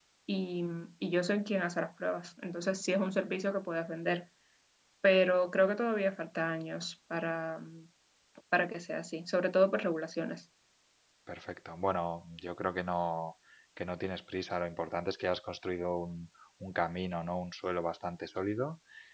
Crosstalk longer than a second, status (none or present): none